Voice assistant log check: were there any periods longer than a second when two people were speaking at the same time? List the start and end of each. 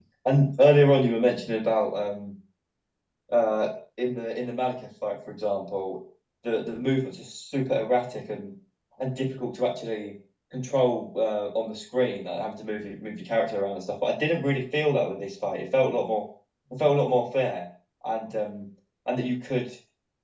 none

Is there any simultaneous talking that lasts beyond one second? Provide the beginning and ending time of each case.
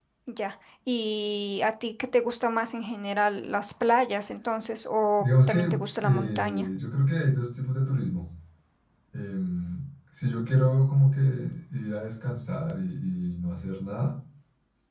5.2-6.7

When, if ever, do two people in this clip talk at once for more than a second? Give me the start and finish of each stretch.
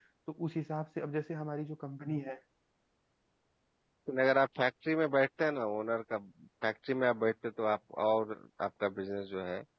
none

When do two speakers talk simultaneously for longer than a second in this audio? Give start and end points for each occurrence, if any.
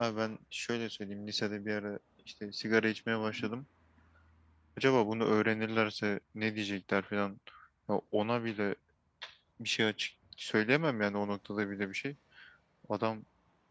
none

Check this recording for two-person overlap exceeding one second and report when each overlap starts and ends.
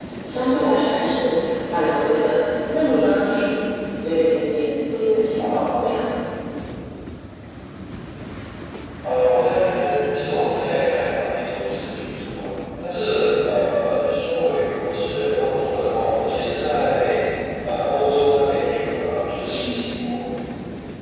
none

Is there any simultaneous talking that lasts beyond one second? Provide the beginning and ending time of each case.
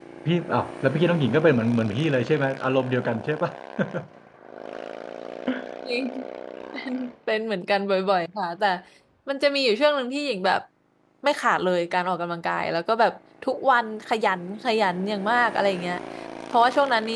none

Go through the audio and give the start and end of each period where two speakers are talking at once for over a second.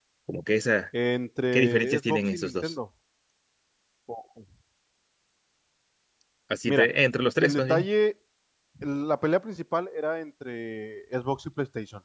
1.5-2.7

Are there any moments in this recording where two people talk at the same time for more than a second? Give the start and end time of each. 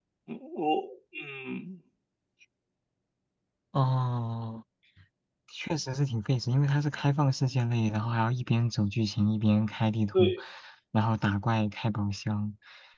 none

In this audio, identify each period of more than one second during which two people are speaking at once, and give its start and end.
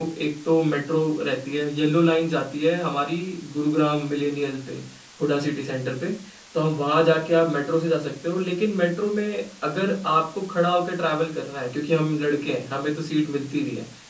none

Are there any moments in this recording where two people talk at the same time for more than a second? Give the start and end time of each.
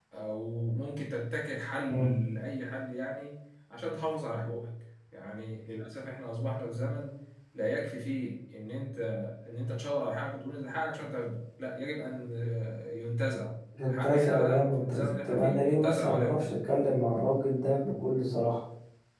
13.8-16.5

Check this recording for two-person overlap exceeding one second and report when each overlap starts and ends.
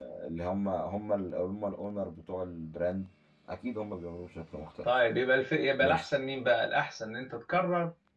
none

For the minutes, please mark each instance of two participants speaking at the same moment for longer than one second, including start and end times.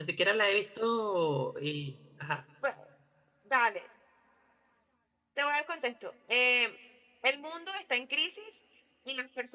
none

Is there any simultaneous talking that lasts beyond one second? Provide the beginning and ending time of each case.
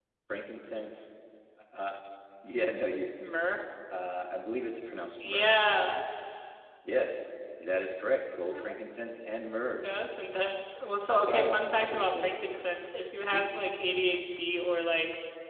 11.1-12.3

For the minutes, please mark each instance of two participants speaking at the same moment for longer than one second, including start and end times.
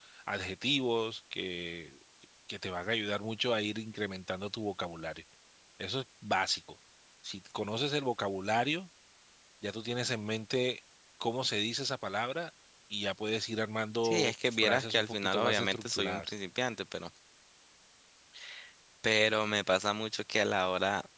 14.0-16.3

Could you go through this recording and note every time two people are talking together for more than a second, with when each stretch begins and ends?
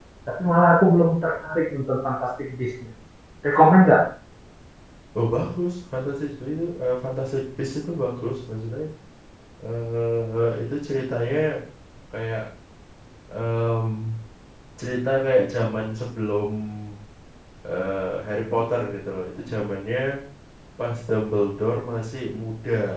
none

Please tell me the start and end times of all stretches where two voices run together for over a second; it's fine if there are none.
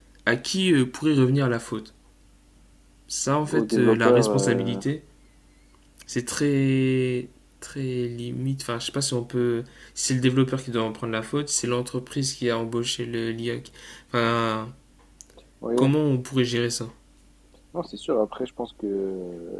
3.5-4.8

